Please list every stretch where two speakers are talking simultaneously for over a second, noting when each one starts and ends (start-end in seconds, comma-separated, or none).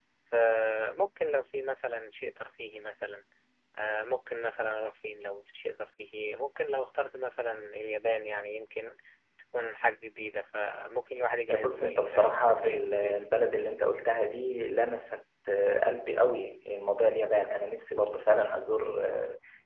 11.5-13.2